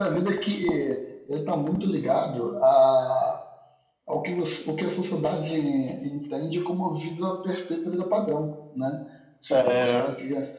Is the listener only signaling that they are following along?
Yes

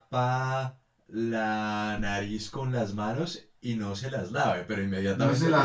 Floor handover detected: Yes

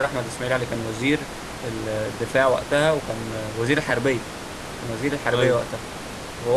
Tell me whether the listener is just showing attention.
Yes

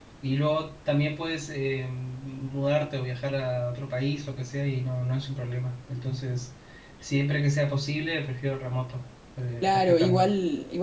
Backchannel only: No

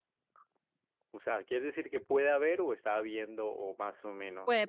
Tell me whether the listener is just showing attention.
No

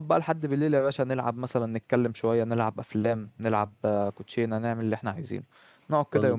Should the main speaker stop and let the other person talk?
Yes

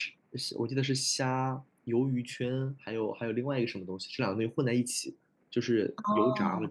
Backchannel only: No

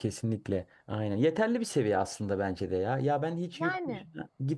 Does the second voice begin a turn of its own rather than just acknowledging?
No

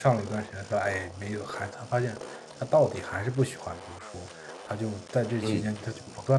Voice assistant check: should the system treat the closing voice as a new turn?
No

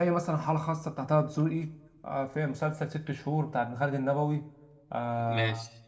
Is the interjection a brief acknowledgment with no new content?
Yes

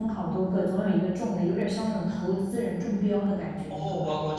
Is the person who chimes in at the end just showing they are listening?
No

